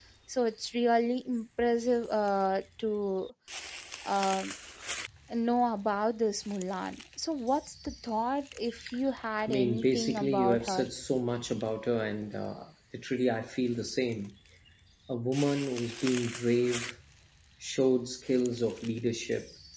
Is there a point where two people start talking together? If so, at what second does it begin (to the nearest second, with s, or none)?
9 s